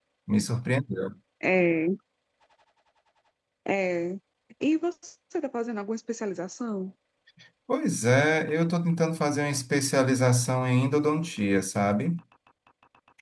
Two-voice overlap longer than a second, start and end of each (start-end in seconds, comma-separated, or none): none